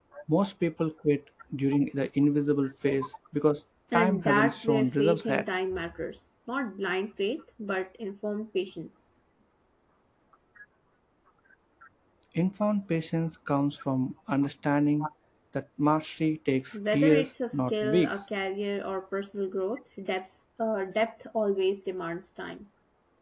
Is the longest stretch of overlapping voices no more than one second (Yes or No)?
No